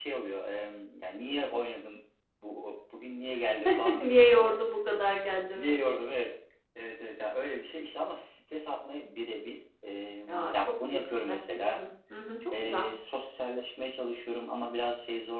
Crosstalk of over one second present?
Yes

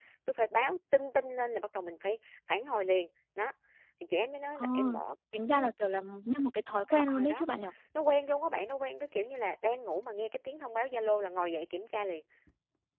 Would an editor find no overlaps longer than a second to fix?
Yes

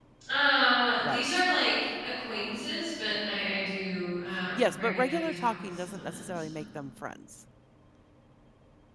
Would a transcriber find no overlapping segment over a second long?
No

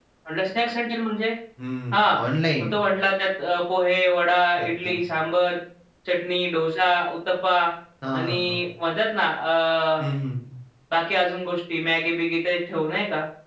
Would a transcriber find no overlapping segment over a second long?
Yes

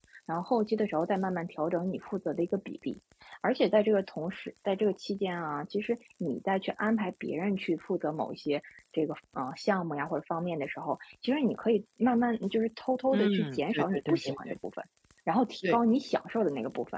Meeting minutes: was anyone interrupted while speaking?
Yes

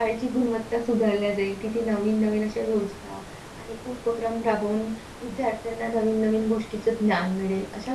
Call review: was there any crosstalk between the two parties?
No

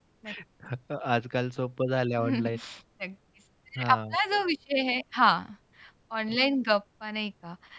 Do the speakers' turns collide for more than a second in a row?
No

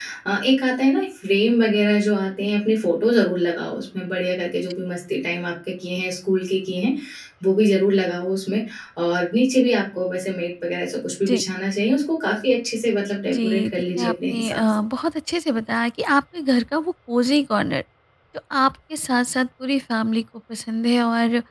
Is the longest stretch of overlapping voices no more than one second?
No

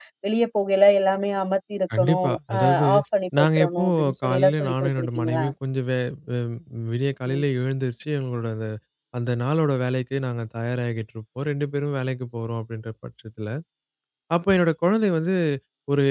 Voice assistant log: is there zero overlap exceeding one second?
No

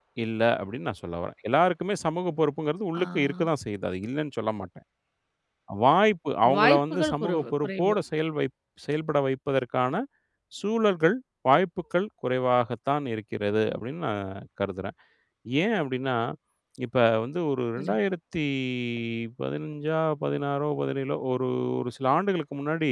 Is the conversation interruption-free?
No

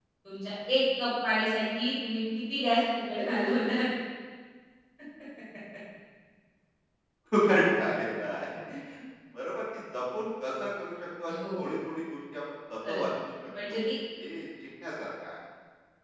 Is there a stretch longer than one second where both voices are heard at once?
No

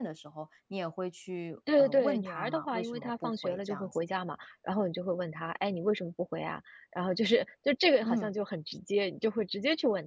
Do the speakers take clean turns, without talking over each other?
No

